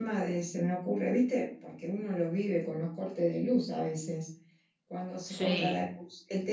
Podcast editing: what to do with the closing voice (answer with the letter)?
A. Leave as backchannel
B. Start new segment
A